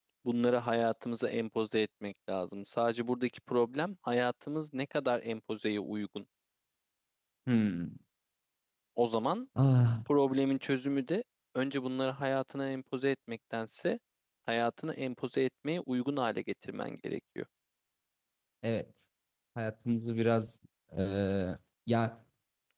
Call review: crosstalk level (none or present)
none